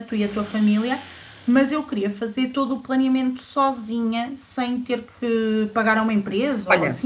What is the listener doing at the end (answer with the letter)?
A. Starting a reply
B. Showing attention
A